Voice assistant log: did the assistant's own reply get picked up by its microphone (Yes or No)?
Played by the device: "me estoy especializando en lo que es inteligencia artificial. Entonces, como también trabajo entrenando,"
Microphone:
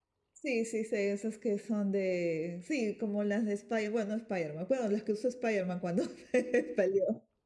No